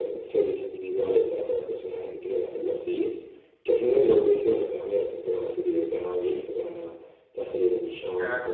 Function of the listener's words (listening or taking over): listening